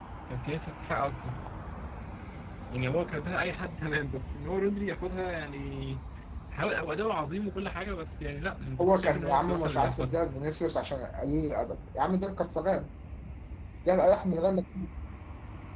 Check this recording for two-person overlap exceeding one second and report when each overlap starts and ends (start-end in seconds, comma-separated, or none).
8.8-10.2